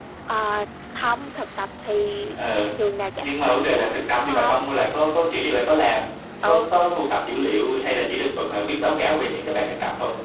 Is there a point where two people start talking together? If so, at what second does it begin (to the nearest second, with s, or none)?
3 s